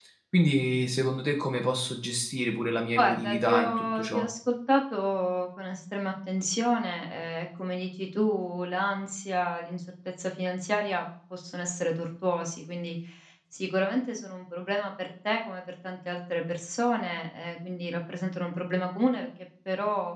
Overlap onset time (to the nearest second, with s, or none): 3 s